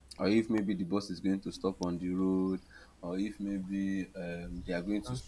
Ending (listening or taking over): listening